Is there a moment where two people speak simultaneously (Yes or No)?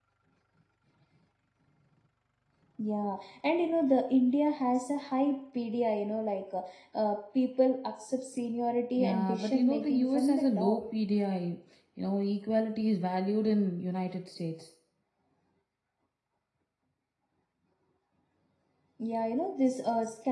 Yes